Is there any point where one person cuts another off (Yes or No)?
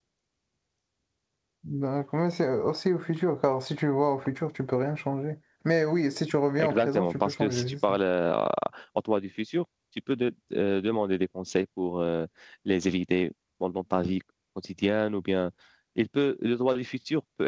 Yes